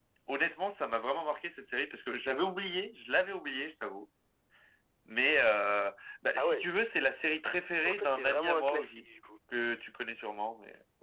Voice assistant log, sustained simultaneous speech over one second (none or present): present